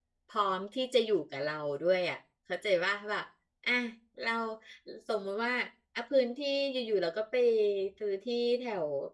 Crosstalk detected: No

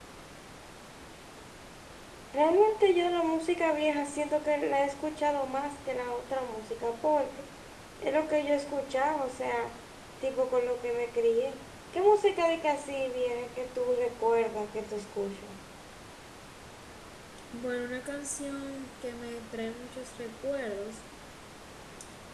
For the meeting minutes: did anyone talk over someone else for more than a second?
No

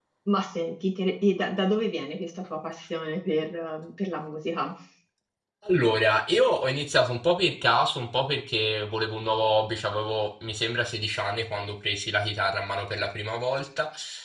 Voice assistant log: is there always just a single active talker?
Yes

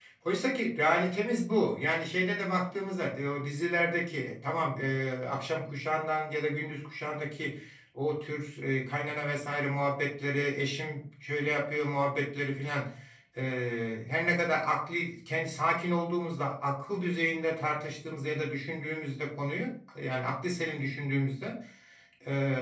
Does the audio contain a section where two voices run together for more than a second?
No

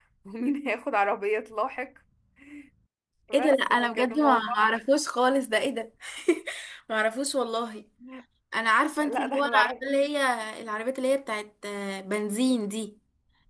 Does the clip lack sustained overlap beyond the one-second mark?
No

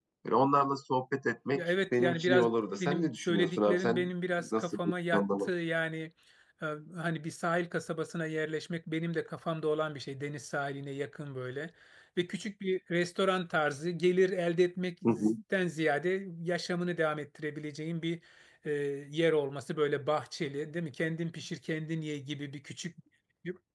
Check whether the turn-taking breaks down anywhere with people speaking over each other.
Yes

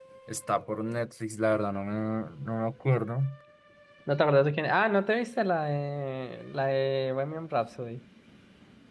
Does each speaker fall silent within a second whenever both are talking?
Yes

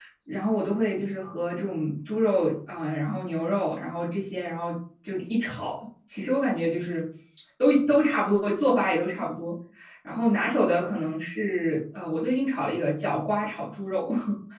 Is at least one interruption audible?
No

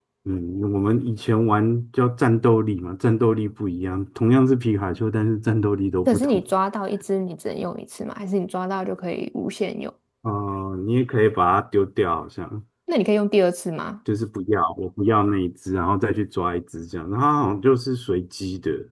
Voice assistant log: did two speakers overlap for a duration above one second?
No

